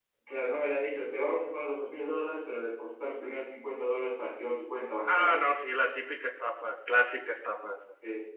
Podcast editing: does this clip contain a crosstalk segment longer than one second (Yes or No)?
No